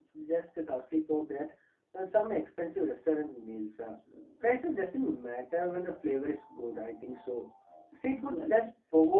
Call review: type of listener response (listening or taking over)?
listening